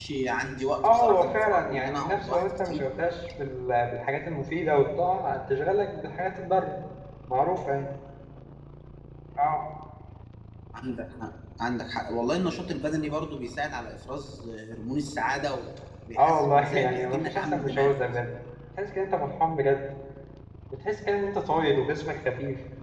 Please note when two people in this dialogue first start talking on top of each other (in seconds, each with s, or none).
0.8 s